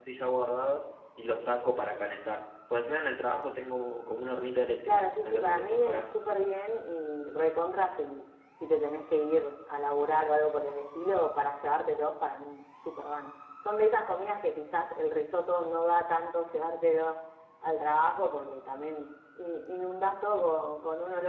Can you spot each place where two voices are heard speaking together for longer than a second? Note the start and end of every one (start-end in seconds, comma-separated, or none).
4.8-6.2